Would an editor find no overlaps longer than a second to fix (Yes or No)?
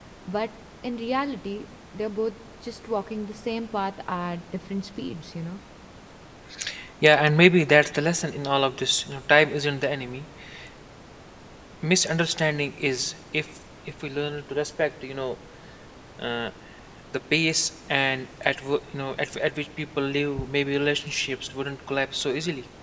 Yes